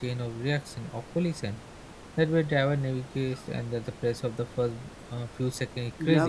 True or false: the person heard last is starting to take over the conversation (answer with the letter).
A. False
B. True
B